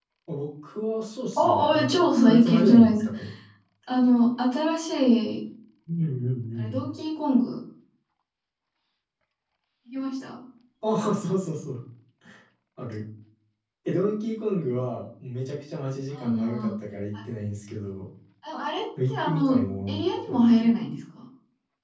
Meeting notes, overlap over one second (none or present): present